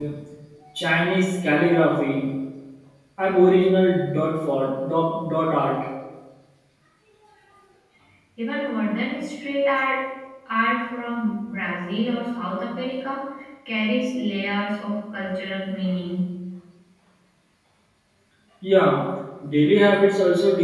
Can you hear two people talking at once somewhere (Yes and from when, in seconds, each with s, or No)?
No